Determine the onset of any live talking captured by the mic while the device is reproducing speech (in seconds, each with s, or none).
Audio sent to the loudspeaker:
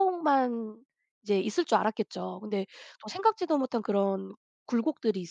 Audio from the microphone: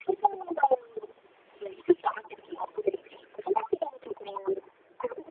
none